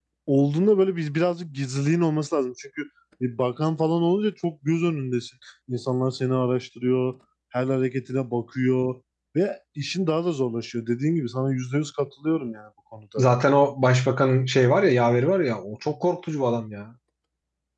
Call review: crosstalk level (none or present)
none